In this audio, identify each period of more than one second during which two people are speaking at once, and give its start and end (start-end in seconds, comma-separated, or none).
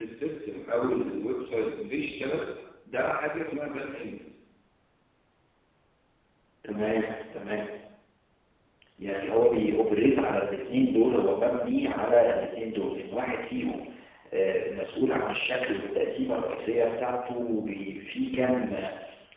none